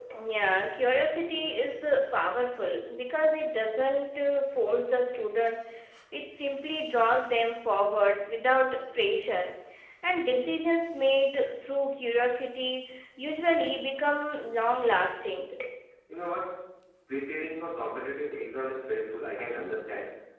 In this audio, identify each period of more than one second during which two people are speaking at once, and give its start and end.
none

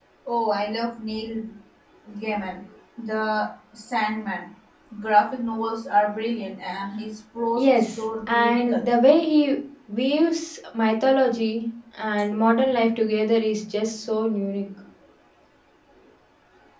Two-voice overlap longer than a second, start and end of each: 7.6-8.8

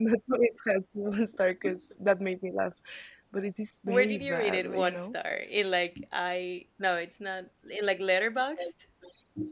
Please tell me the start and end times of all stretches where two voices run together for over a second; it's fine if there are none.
3.9-5.1

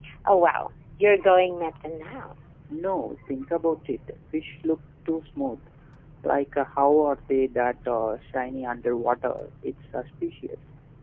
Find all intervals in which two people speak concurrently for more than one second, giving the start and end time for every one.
none

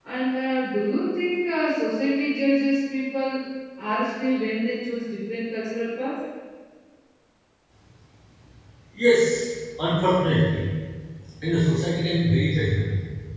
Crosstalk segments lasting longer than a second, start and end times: none

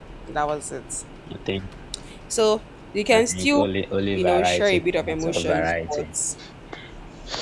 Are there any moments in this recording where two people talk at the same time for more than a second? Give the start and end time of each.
4.1-6.0

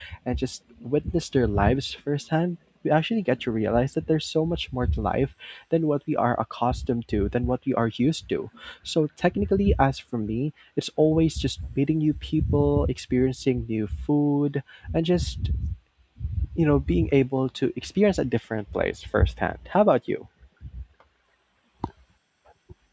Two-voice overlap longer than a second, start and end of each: none

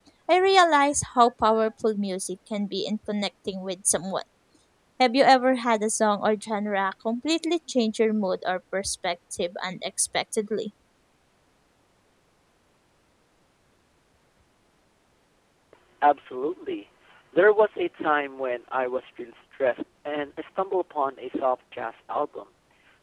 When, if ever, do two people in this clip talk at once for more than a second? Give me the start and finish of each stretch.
none

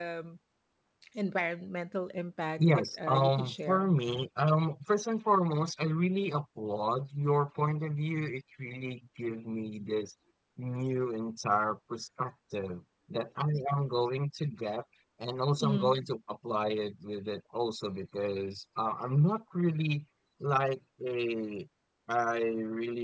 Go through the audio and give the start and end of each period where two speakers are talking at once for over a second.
2.6-3.9

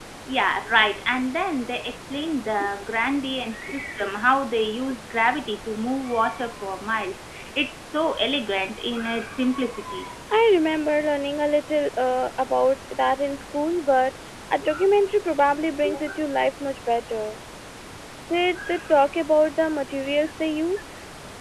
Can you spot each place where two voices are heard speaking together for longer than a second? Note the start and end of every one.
none

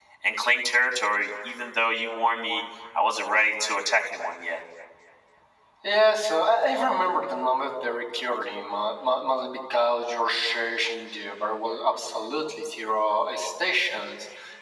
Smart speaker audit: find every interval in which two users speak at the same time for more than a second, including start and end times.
none

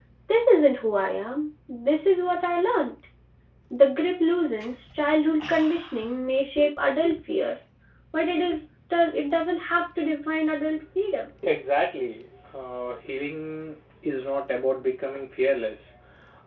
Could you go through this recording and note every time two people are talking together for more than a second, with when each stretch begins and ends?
none

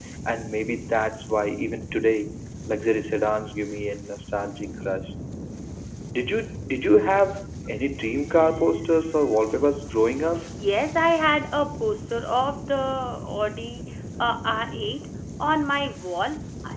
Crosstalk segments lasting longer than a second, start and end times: none

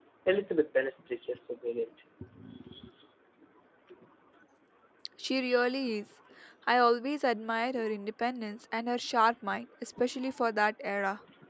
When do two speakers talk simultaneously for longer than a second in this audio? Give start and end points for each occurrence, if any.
none

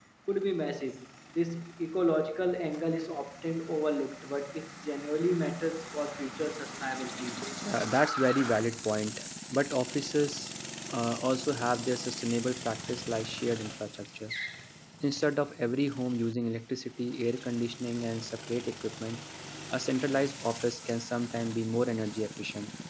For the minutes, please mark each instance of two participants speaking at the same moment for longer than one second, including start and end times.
none

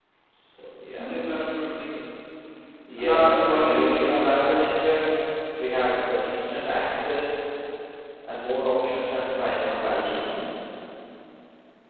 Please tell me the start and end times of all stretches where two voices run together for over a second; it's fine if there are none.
3.0-4.6

